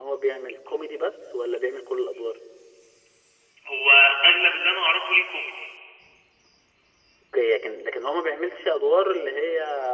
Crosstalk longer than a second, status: none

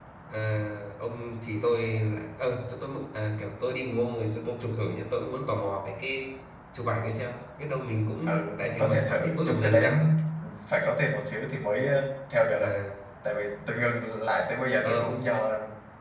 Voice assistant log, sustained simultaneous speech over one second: present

